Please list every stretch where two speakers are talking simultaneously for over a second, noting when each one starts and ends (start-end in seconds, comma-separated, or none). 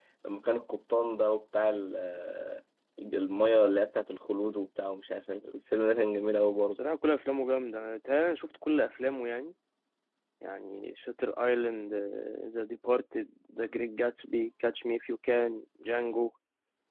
none